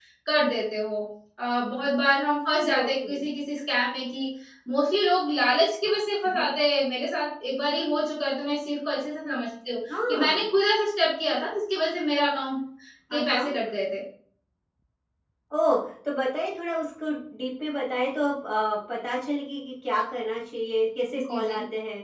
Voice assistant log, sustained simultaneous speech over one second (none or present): none